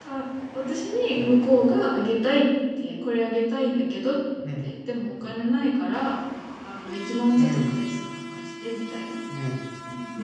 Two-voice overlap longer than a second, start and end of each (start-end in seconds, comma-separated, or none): none